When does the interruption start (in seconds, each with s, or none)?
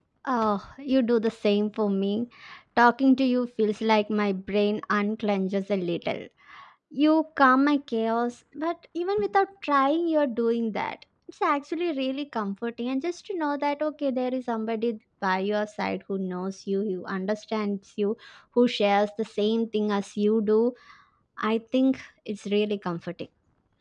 none